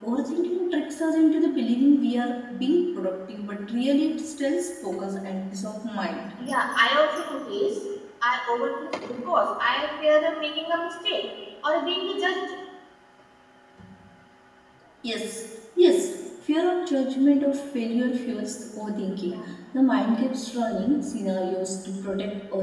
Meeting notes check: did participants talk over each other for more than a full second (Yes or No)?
No